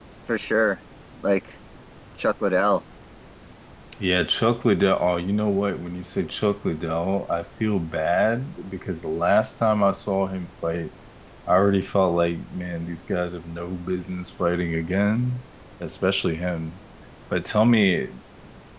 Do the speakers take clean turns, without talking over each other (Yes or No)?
Yes